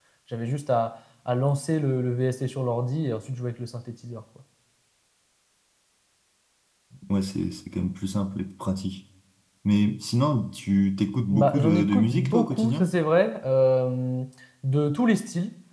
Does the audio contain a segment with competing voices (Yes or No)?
Yes